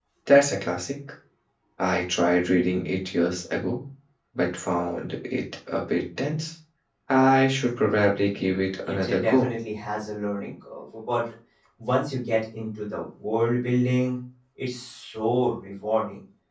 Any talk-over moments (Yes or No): Yes